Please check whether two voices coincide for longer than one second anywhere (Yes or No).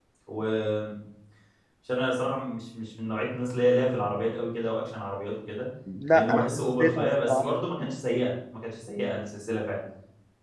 Yes